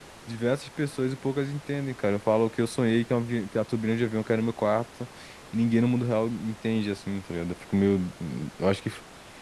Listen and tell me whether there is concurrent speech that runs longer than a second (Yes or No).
No